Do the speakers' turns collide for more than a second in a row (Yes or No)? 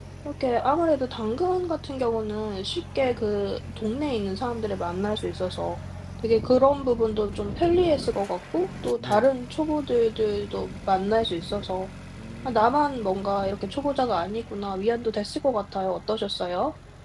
No